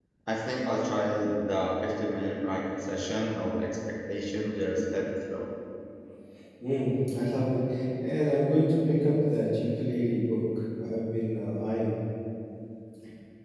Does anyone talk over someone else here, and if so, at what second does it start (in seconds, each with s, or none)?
none